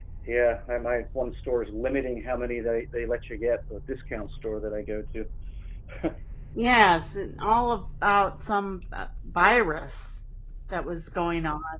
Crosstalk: none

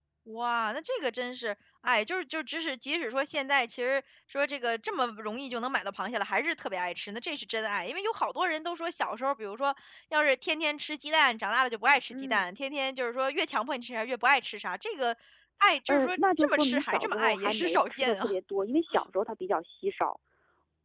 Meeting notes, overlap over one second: present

